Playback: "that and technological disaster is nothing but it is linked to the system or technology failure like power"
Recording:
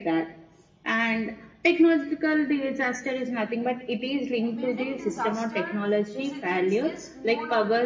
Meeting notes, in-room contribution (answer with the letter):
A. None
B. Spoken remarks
B